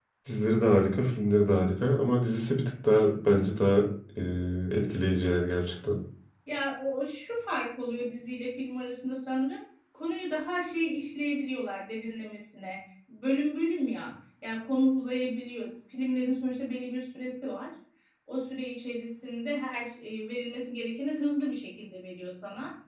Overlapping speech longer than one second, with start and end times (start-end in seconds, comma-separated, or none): none